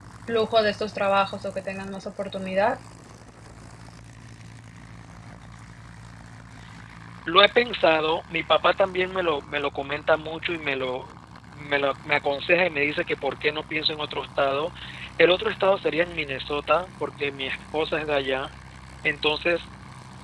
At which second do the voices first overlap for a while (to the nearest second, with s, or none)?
none